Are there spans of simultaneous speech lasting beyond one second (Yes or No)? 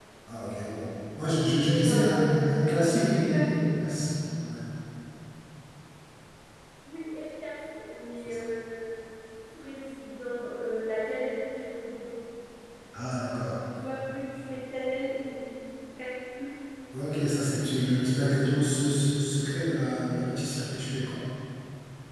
Yes